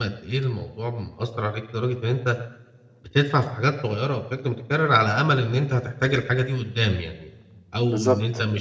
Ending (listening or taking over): listening